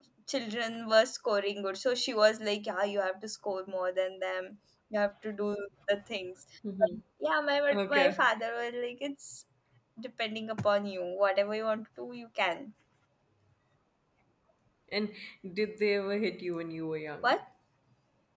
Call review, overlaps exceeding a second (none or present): none